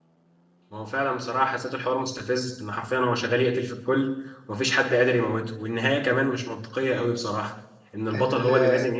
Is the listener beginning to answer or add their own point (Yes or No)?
No